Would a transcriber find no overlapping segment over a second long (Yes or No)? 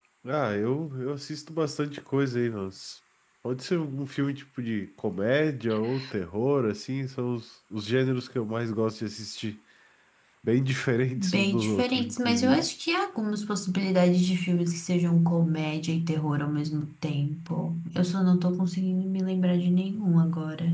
No